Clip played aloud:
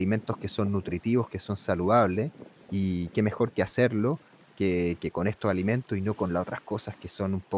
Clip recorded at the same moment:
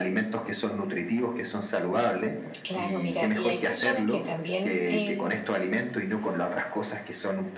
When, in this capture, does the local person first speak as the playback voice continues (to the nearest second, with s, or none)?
3 s